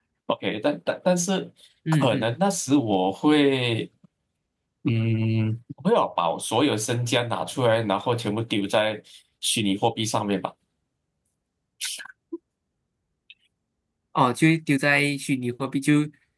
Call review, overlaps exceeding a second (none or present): none